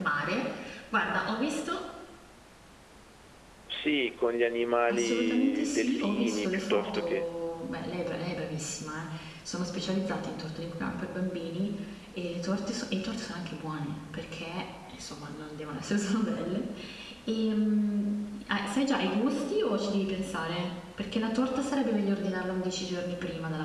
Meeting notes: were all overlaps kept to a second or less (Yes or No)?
No